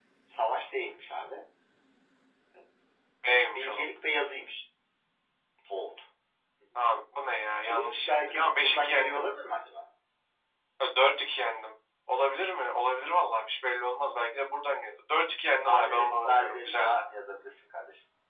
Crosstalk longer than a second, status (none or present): present